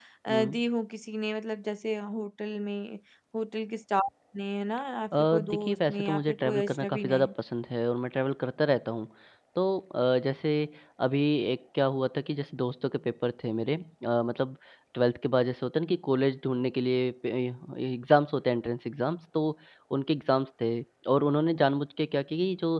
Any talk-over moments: Yes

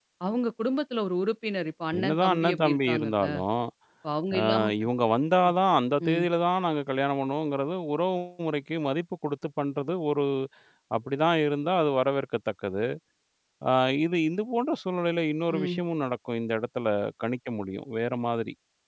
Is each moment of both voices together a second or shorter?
No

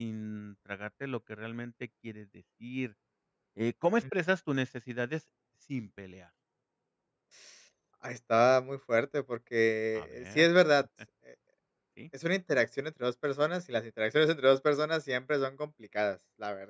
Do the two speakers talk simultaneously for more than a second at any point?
No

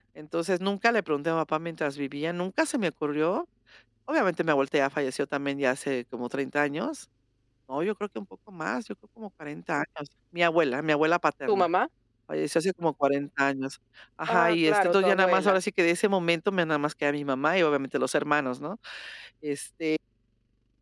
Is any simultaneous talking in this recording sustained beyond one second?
Yes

